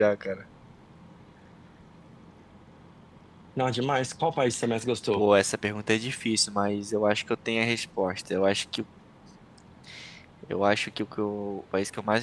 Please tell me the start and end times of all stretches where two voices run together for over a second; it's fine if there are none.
none

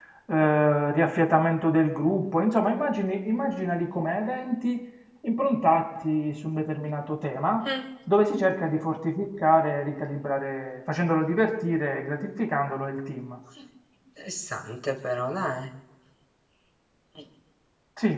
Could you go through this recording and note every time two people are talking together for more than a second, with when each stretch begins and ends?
none

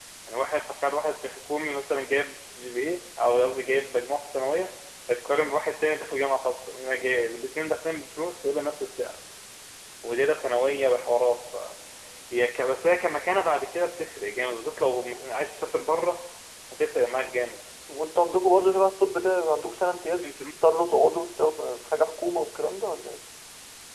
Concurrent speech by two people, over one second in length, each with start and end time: none

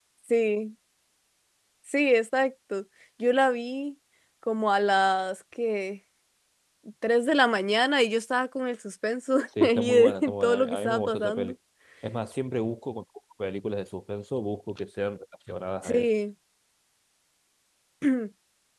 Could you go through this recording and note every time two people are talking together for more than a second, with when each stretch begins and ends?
9.6-11.5

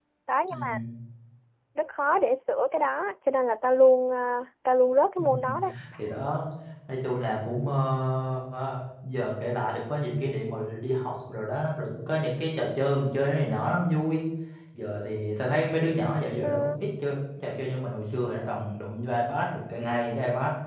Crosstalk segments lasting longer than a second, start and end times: none

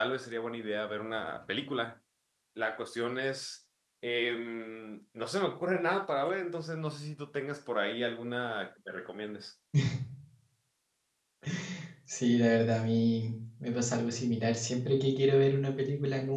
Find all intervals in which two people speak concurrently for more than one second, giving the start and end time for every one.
none

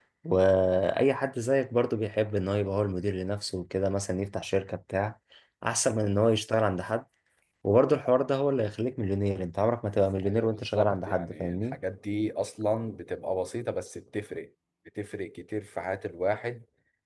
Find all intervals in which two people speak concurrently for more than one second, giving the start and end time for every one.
10.2-11.8

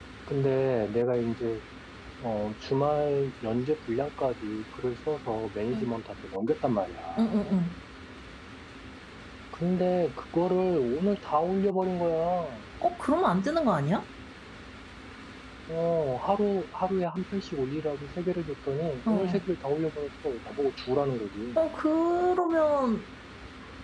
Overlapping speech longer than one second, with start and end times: none

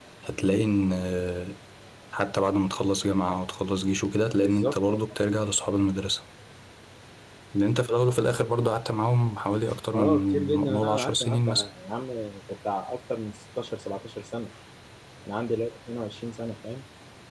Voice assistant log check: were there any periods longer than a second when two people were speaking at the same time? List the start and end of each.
9.9-11.7

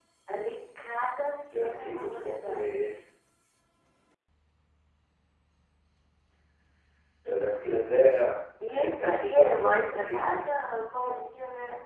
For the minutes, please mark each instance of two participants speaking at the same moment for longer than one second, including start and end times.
1.5-2.9, 8.7-10.3

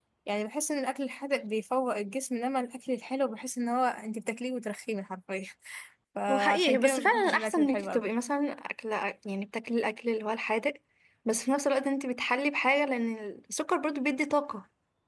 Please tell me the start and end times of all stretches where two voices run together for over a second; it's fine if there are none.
6.3-8.0

